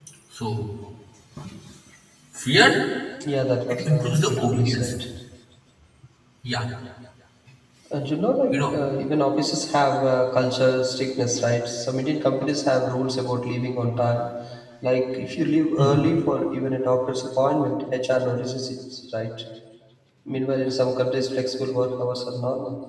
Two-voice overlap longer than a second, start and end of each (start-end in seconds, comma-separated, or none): 3.7-4.9